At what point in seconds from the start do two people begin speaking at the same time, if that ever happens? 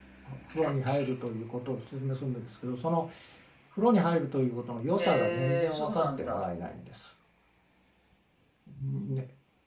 5.0 s

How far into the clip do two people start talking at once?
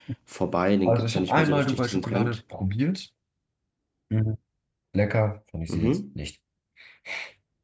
0.8 s

